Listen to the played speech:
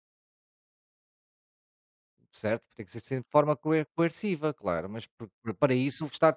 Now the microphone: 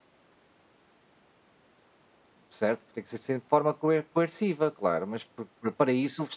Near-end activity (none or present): none